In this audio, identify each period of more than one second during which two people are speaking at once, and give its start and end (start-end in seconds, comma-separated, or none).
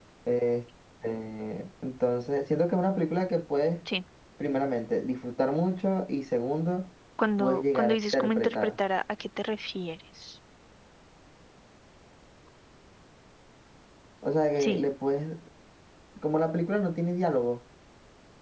7.4-8.7